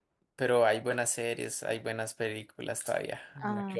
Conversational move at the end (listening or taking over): taking over